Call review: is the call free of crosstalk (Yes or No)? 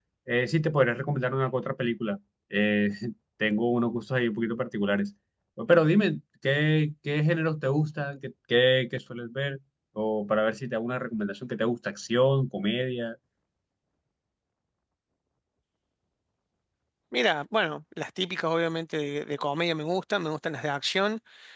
Yes